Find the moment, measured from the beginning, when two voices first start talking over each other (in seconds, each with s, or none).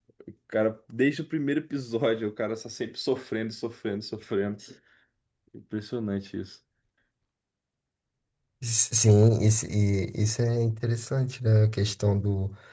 none